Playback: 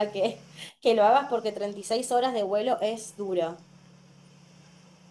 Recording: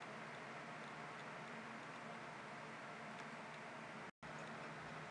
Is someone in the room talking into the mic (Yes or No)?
No